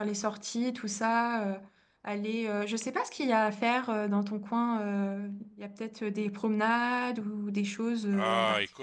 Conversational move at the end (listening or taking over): taking over